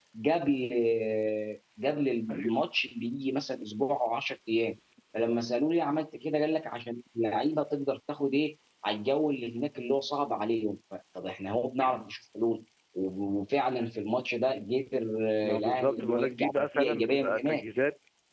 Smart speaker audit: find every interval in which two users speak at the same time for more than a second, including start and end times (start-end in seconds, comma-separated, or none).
15.4-17.6